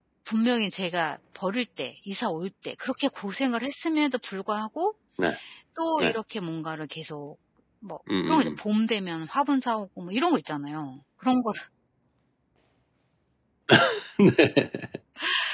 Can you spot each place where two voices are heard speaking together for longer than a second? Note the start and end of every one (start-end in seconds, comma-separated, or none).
none